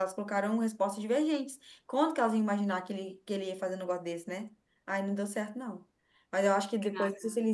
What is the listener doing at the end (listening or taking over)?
listening